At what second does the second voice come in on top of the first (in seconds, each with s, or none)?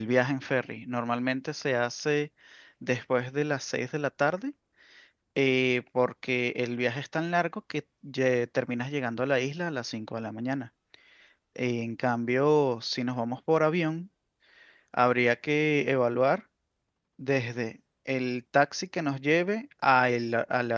none